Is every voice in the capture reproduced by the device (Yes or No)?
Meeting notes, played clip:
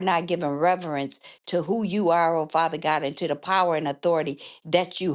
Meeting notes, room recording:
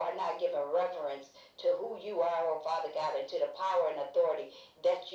Yes